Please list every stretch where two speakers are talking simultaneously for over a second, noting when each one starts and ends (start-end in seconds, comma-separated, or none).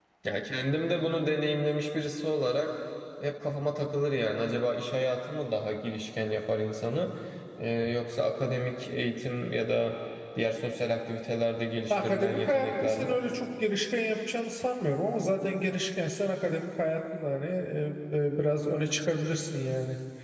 11.9-13.2